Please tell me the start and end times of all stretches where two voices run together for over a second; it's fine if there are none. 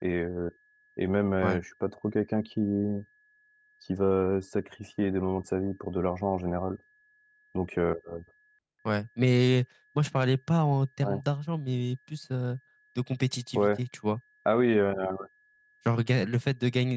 none

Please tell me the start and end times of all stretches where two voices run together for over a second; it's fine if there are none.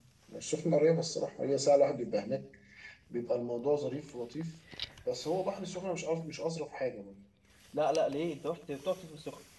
none

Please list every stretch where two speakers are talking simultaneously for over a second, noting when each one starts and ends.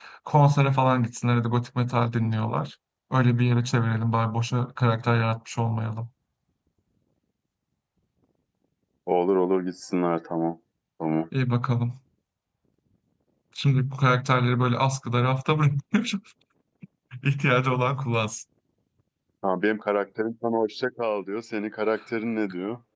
none

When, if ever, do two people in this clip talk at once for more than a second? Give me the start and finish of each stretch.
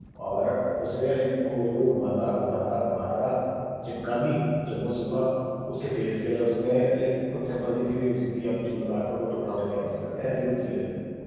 none

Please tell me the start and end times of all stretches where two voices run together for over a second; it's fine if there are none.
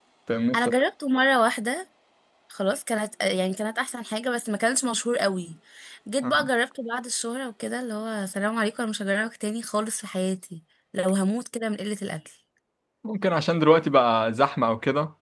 none

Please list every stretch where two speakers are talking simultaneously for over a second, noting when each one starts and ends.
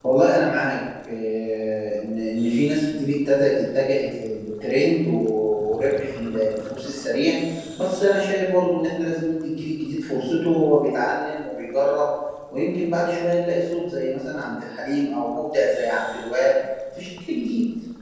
none

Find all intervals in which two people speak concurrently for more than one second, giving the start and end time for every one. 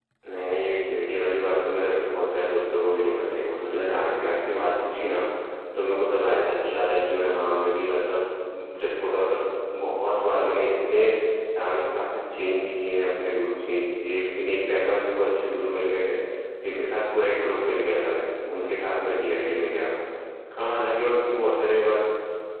none

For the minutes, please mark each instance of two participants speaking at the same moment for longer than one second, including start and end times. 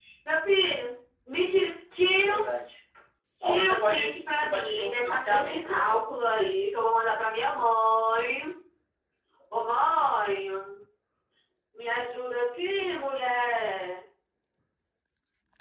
3.4-6.0

